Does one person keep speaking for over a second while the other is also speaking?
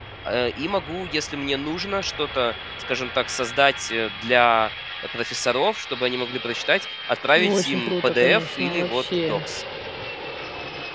Yes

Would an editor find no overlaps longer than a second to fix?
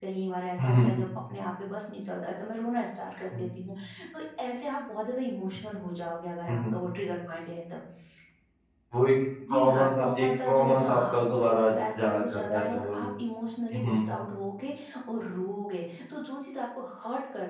No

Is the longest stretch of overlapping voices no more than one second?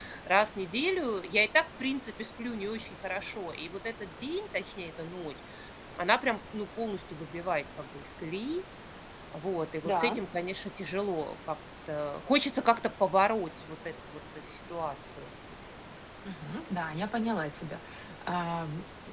Yes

